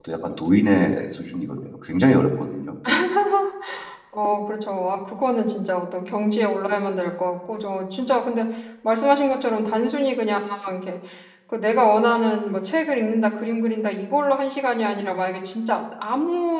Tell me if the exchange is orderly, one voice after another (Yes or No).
Yes